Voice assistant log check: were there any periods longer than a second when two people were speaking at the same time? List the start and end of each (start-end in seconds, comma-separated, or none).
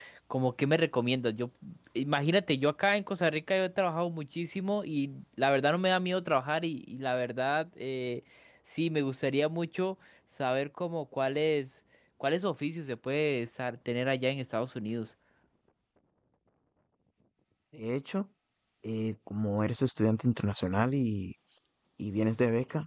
none